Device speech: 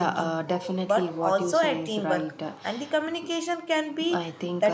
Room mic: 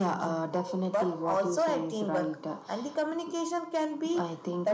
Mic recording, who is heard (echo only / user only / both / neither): echo only